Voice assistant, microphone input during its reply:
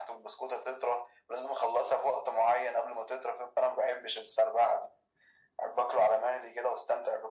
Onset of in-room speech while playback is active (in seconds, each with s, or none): none